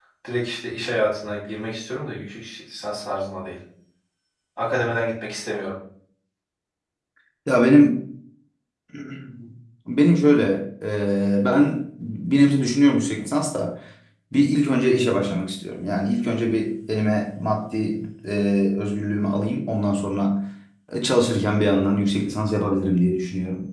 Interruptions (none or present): none